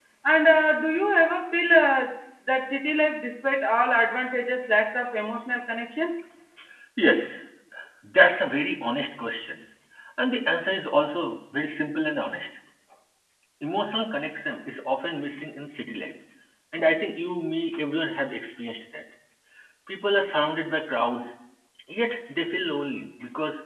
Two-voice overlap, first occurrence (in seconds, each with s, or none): none